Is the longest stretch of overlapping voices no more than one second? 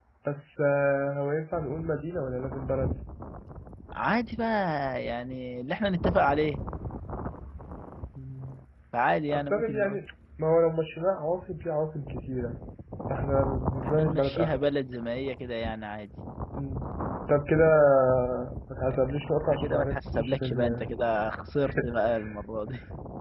No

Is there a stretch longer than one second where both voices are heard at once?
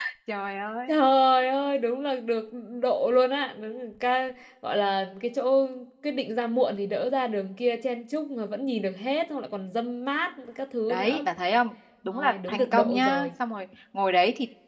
Yes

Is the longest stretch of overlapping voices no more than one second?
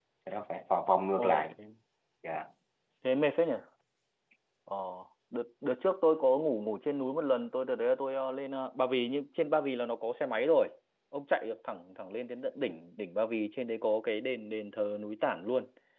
Yes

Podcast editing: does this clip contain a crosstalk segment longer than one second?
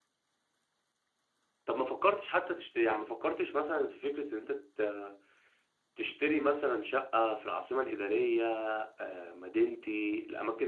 No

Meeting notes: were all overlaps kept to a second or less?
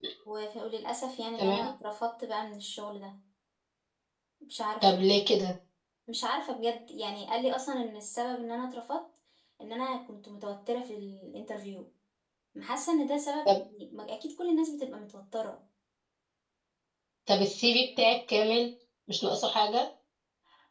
Yes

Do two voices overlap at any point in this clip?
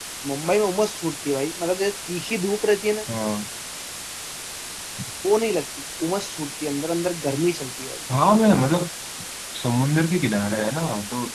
No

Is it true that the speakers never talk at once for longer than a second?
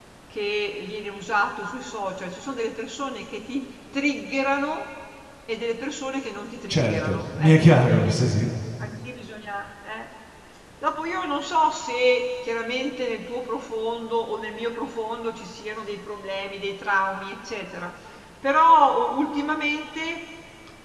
No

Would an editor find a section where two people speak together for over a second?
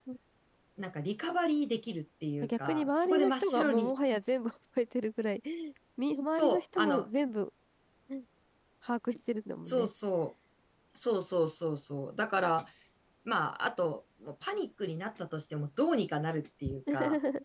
Yes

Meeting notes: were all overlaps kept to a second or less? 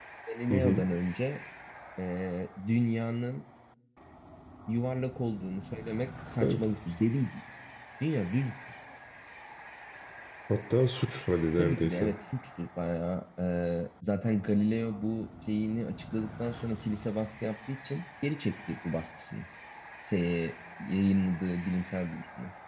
Yes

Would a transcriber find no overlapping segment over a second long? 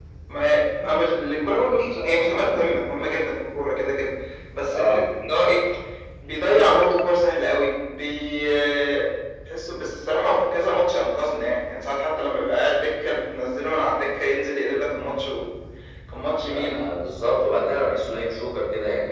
Yes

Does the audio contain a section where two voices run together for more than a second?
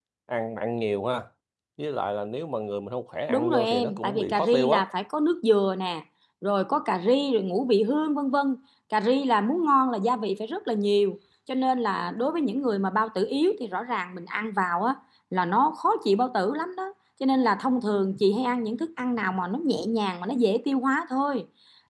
Yes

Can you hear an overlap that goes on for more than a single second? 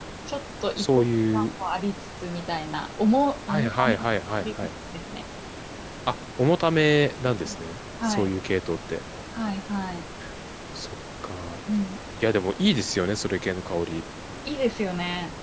Yes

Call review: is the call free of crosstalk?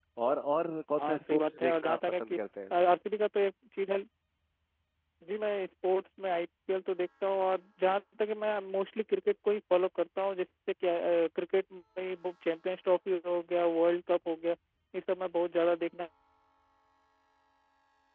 No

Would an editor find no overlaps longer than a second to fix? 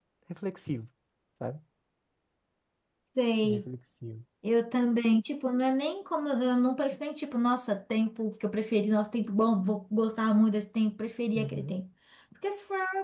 Yes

